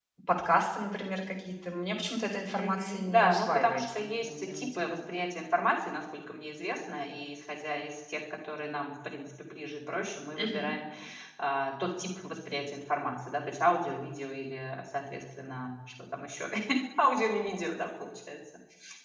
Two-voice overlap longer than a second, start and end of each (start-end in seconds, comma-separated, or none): 2.5-5.0